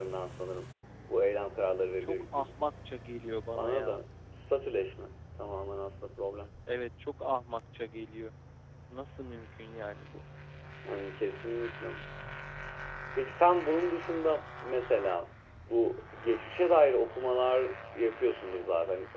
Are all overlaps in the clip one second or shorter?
Yes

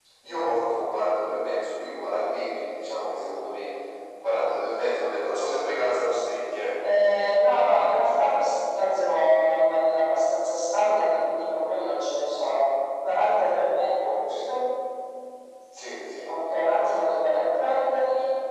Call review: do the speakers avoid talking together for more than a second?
Yes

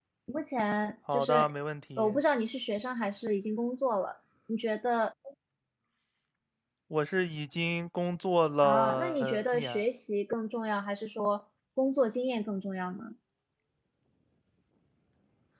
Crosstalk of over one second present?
Yes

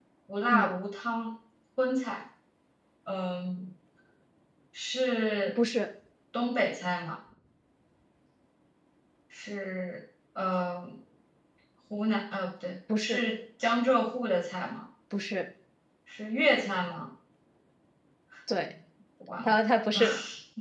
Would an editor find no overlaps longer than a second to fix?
Yes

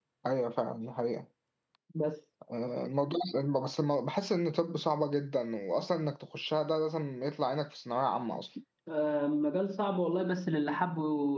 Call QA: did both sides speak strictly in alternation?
Yes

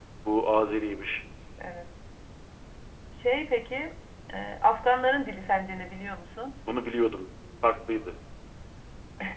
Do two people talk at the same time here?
No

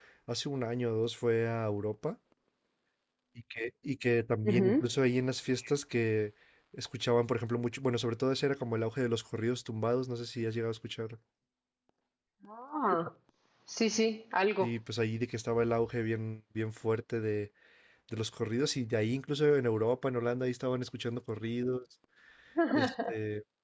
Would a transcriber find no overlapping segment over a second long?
Yes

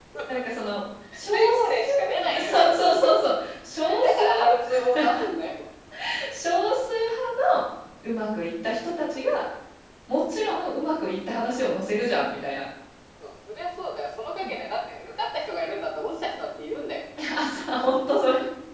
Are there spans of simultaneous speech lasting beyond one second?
Yes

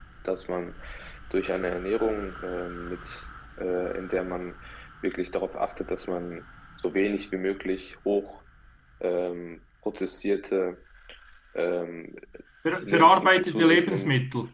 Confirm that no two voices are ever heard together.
No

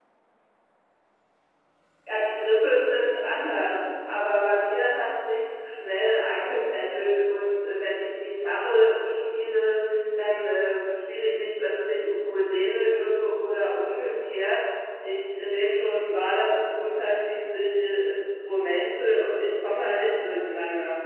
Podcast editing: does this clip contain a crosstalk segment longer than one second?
No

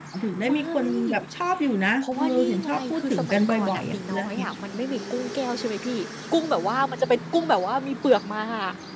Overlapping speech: Yes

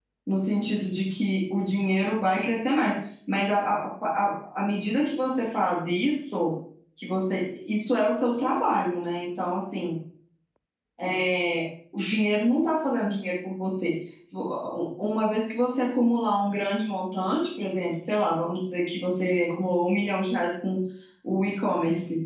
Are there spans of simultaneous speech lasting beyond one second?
No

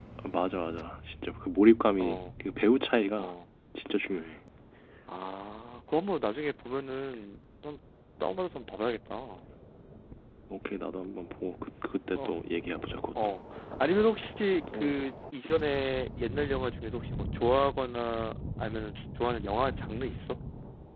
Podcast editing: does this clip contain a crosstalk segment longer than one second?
No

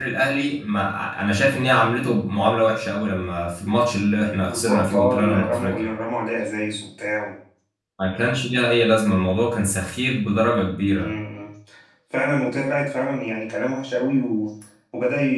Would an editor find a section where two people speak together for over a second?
Yes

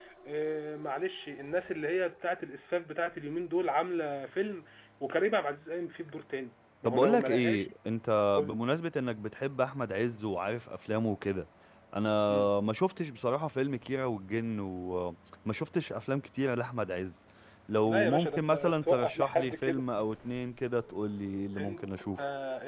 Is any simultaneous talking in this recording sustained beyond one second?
Yes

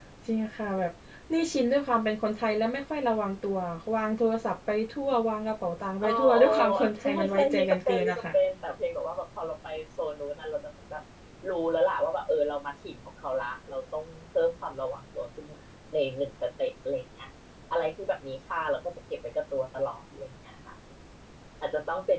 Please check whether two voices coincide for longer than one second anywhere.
Yes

